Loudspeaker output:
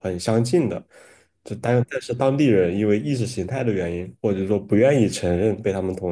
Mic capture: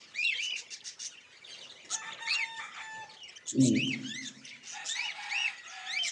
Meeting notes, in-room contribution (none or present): present